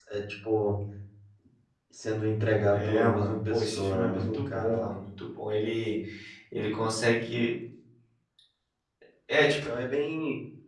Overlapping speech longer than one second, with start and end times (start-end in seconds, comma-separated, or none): 2.7-5.0